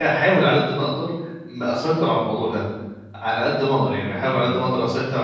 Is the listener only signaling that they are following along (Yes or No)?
Yes